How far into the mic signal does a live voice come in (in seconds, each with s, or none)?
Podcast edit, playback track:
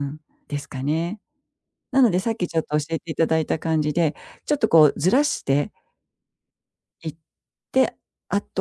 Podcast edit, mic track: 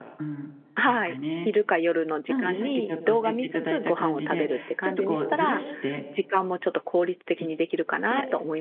0.8 s